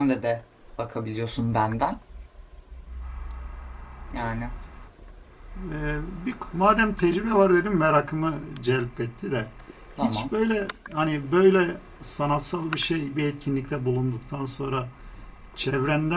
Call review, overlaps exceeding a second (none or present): none